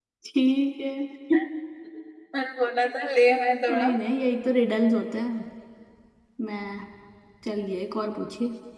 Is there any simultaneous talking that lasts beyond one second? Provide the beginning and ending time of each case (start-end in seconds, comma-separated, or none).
none